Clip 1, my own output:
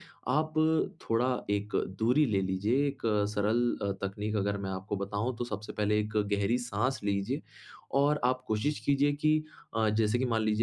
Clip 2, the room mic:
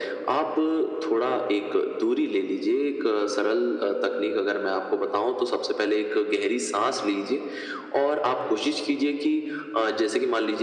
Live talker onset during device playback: none

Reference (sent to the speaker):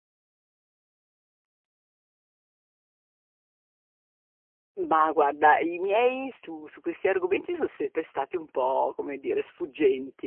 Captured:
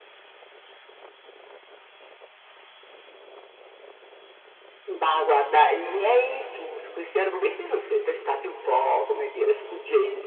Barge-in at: none

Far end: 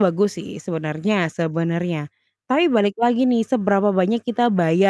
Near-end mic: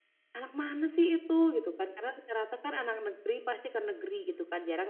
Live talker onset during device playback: 0.3 s

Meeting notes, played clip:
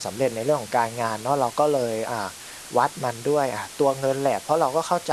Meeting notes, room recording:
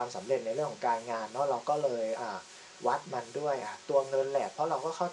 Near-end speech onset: none

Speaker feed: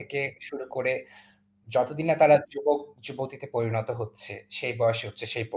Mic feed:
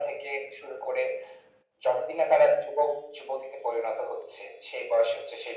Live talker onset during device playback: none

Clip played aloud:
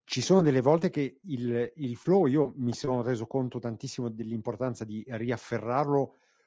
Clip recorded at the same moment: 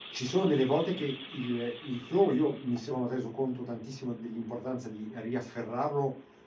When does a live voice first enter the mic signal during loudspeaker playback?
none

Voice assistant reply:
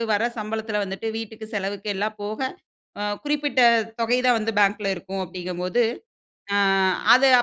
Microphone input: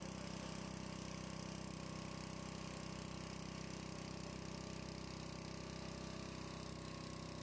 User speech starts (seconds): none

